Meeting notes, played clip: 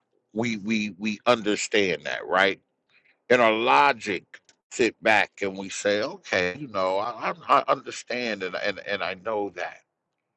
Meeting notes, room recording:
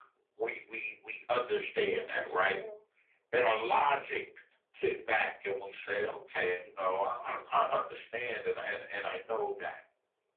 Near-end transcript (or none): I wish I knew.